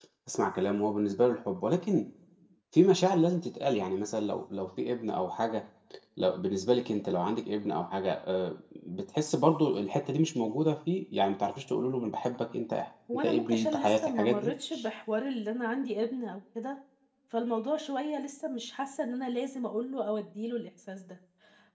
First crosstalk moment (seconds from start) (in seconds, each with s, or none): 13.1 s